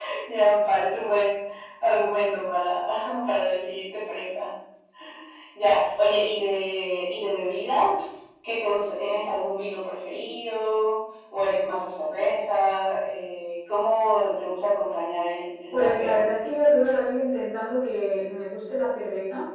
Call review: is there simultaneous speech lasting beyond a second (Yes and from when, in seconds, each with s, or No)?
No